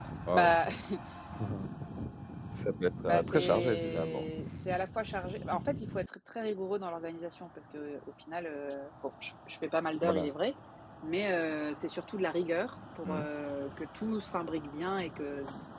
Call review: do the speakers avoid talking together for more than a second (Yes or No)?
No